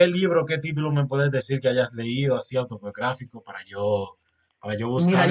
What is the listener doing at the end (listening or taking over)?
taking over